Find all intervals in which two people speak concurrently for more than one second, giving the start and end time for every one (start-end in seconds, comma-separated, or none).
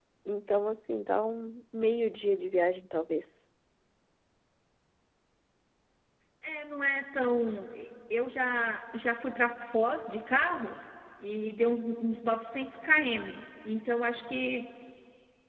none